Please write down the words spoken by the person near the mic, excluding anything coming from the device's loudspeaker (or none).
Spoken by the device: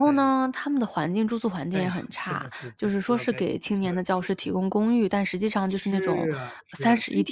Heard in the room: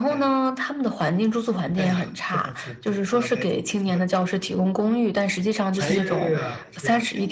哎呀呀，